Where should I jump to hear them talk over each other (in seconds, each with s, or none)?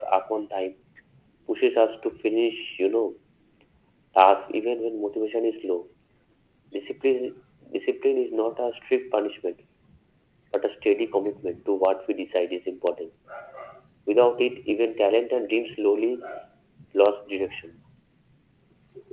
none